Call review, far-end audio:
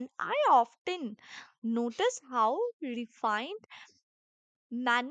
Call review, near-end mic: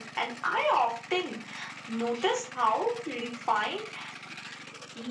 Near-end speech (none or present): none